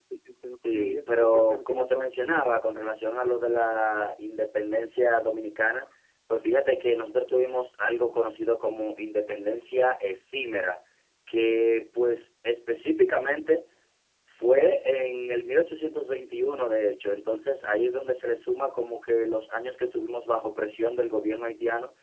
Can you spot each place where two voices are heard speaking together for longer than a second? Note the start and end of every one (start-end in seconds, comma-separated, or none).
0.5-2.1